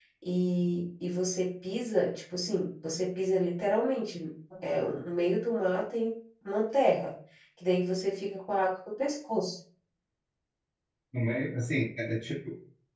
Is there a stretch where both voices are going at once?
No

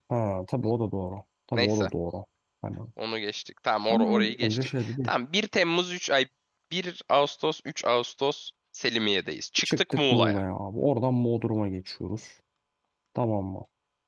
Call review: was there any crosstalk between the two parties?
Yes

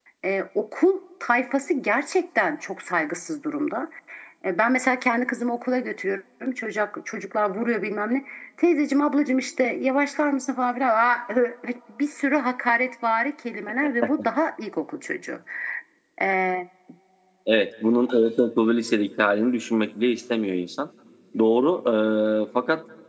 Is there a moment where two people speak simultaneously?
No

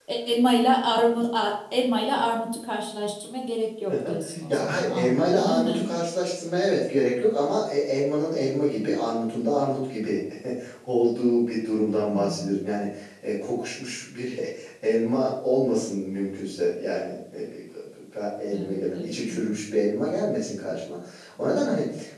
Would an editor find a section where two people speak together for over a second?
Yes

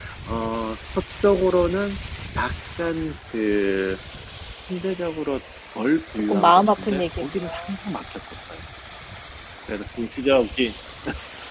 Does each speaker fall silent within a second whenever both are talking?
No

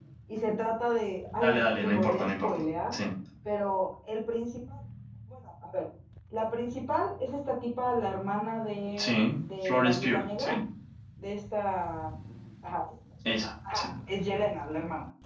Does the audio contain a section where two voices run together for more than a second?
Yes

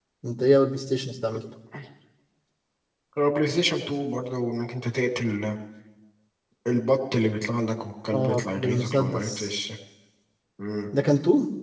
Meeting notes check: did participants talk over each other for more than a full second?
Yes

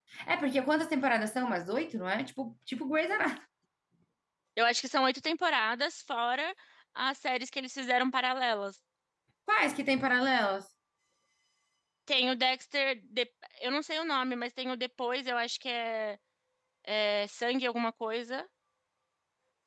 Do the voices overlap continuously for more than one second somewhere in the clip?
No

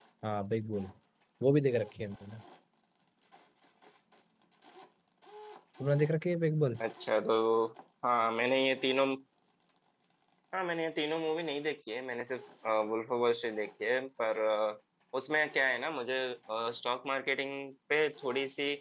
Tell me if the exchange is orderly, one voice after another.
Yes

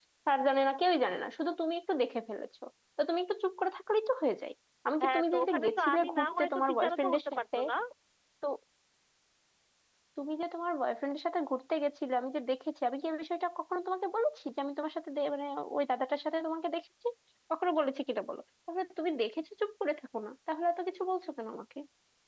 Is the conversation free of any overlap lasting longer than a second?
No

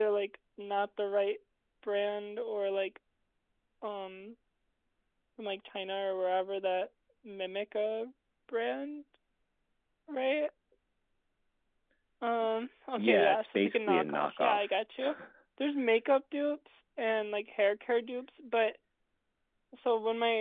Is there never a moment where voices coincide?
No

